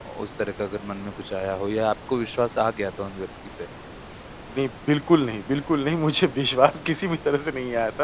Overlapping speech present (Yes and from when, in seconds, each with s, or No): No